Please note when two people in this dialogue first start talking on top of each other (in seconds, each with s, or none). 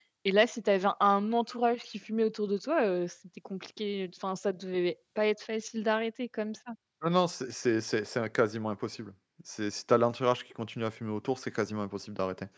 none